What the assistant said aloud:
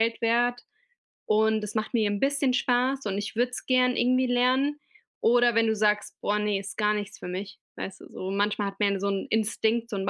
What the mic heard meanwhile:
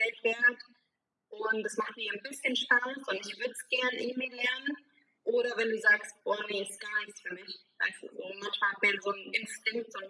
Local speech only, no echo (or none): none